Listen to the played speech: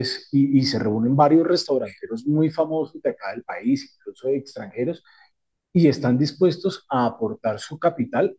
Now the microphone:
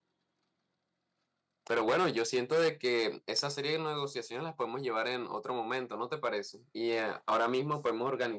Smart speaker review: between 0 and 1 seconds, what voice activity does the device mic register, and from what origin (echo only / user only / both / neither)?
neither